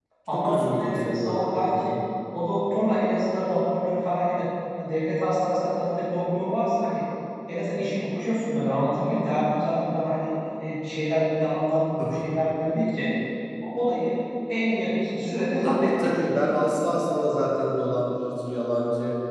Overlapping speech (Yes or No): Yes